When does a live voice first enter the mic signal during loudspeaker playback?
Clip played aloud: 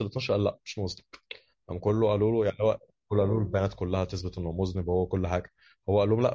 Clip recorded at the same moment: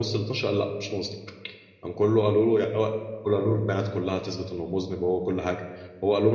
none

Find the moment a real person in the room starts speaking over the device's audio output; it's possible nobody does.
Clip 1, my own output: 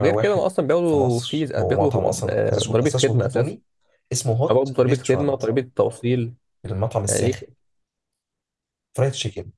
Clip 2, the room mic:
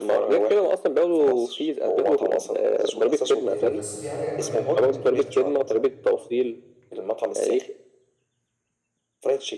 3 s

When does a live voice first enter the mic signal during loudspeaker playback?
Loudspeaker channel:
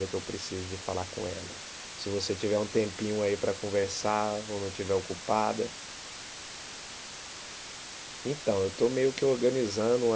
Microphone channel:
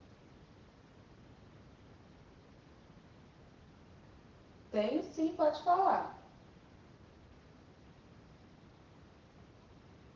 5 s

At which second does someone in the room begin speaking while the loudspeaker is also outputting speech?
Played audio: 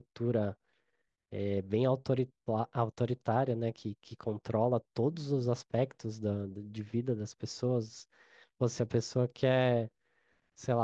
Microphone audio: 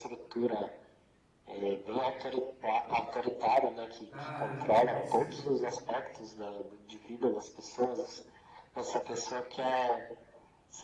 4 s

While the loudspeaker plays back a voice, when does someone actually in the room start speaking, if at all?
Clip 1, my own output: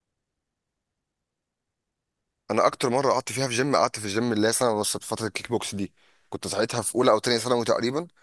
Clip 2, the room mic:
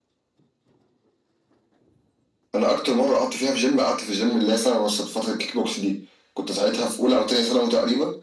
none

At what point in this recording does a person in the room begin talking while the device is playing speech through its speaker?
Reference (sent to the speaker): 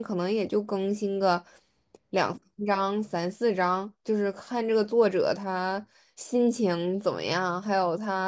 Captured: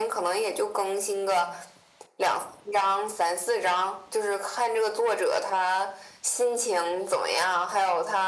none

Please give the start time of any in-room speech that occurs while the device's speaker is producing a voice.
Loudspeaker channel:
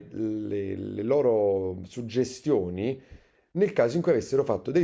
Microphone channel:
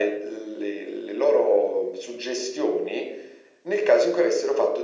none

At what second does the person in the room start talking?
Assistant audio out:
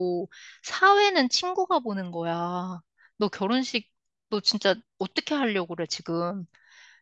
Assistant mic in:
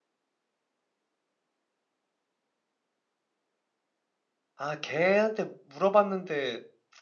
5 s

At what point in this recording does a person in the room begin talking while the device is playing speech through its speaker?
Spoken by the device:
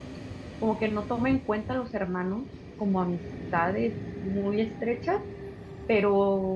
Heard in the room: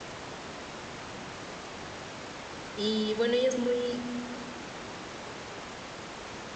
3 s

